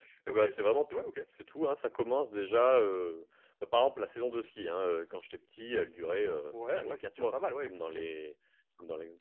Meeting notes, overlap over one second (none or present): present